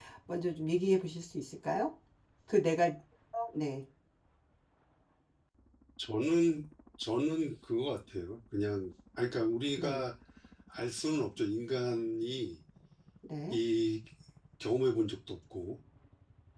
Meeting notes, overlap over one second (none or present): none